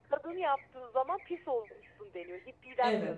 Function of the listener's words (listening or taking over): taking over